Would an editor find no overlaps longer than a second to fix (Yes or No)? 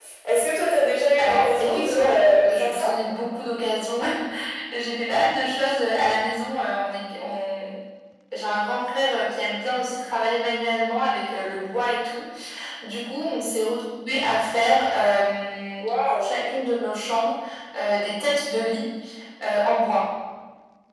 No